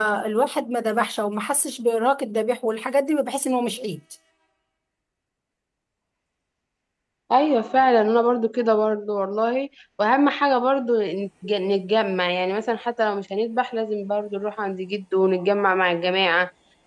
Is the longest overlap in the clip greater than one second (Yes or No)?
No